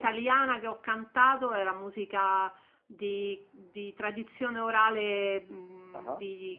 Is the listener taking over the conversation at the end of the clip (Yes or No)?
No